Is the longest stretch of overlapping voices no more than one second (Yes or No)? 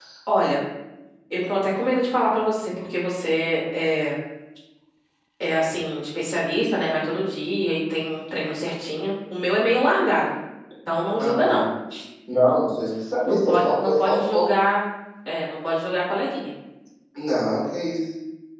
No